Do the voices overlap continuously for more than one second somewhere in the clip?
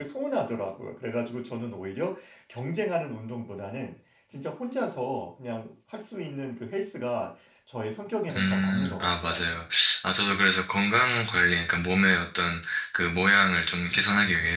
Yes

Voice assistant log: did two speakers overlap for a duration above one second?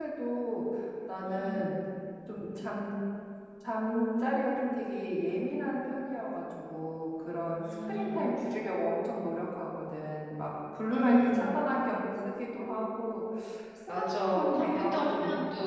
Yes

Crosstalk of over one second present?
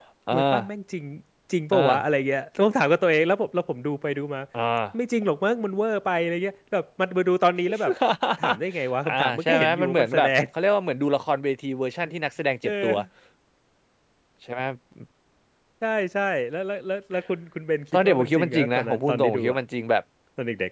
Yes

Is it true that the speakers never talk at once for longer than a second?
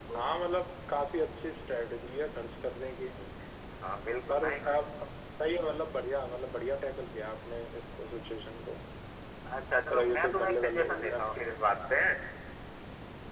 No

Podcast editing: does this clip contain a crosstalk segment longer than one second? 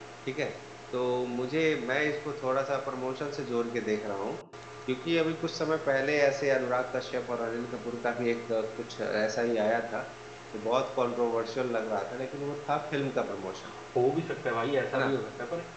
No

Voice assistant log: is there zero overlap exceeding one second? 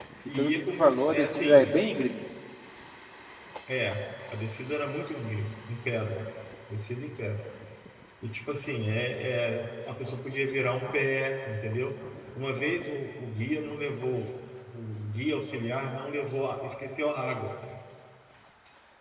No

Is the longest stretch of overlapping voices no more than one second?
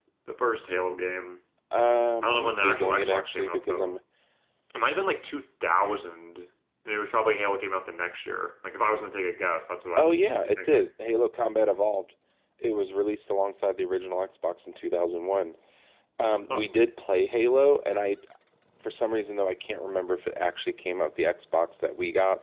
No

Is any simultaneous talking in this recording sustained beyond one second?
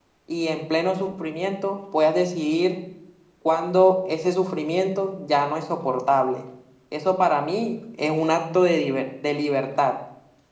No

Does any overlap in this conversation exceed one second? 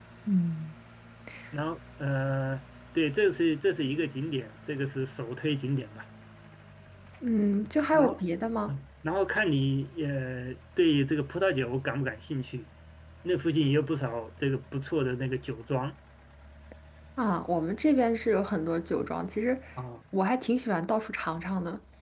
No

